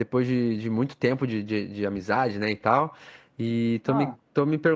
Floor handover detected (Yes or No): No